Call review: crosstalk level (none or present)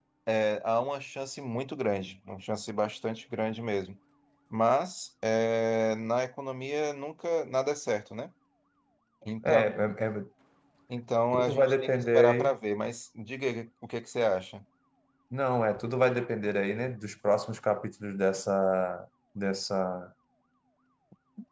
present